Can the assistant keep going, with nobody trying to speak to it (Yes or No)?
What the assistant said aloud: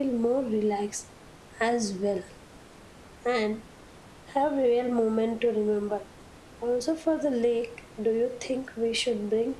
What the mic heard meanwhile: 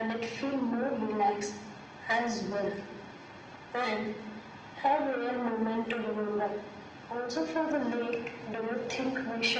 Yes